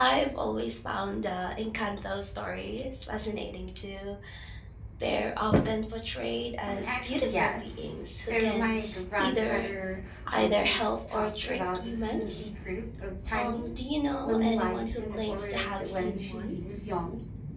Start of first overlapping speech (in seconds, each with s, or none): 6.7 s